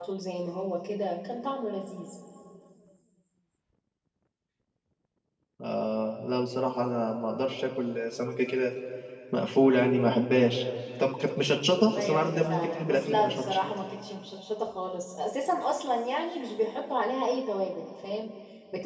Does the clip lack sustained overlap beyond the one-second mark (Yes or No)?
No